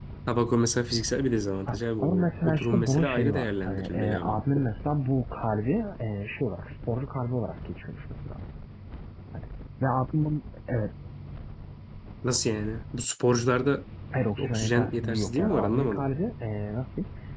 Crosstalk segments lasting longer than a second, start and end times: 1.7-4.4, 14.4-16.1

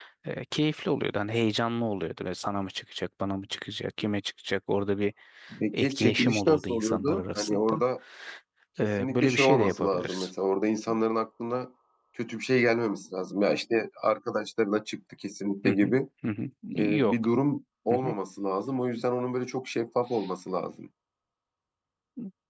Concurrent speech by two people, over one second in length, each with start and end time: 5.7-7.8, 8.8-10.3

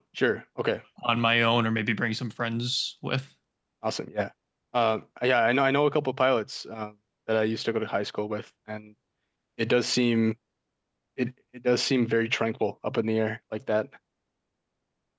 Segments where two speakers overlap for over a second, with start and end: none

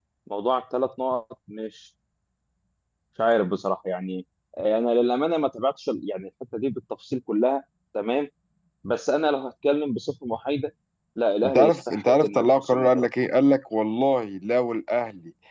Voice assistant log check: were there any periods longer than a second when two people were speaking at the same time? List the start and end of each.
11.4-13.1

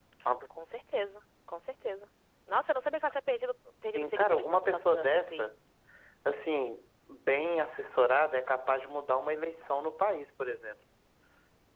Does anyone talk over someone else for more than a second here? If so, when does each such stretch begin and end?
4.0-5.5

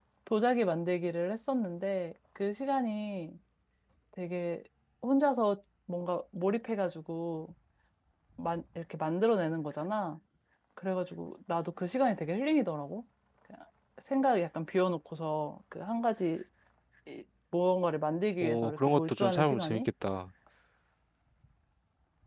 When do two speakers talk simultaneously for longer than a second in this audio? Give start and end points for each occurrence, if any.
18.4-19.9

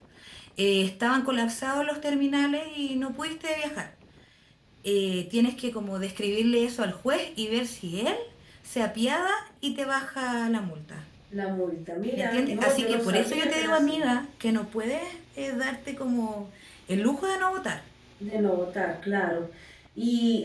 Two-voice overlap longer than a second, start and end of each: 12.2-14.0

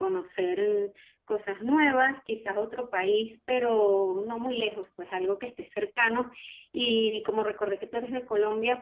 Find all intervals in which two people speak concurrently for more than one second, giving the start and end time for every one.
none

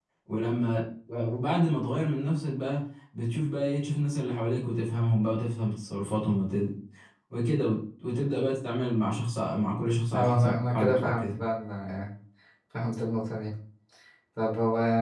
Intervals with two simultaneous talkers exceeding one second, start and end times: 10.1-11.4

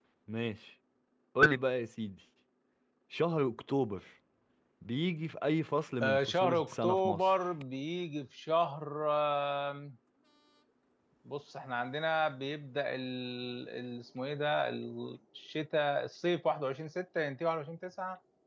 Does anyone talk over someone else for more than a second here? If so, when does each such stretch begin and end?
6.0-7.3

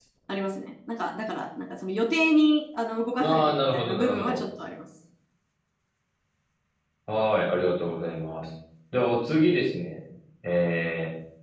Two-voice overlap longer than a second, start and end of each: 3.2-4.4

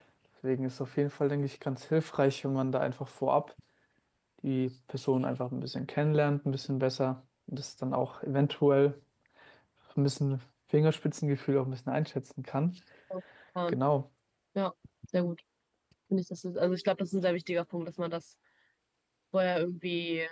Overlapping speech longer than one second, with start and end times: none

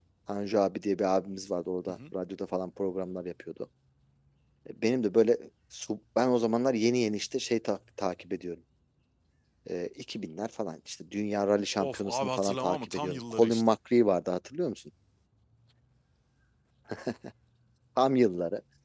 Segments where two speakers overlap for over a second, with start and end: 11.8-13.6

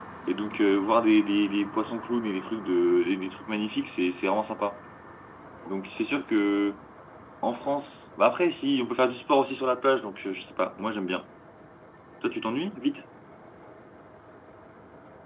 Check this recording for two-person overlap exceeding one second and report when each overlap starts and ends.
none

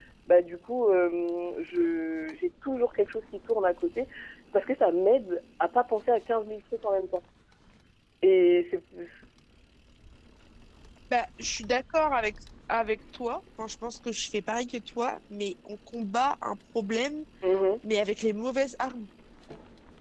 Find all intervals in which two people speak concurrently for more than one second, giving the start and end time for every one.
none

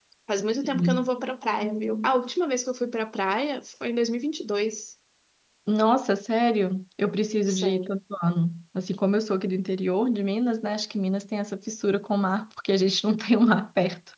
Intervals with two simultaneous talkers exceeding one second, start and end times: none

